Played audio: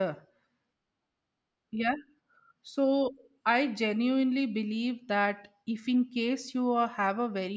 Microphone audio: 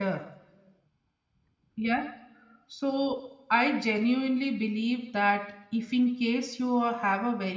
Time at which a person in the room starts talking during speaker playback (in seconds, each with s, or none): none